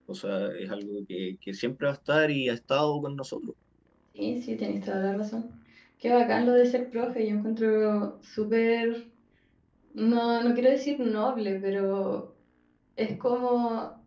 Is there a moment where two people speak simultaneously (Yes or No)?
No